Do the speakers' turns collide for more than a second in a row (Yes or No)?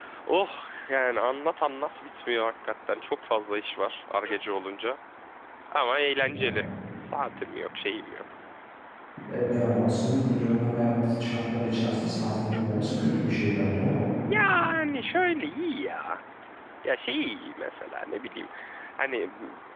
No